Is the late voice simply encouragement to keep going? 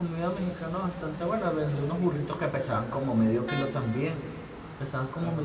No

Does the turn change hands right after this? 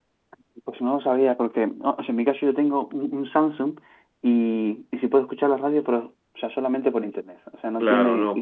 Yes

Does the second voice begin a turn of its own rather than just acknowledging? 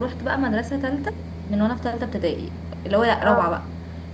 No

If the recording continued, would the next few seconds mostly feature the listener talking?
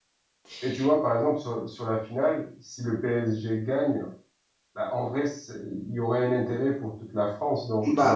Yes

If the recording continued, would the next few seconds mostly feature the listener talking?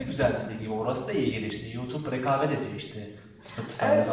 Yes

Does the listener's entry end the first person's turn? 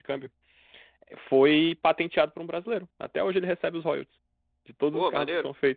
No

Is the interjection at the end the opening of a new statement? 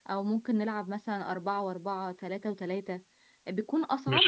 Yes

